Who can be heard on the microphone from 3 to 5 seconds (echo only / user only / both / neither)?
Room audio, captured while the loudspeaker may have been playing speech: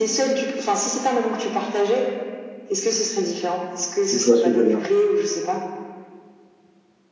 both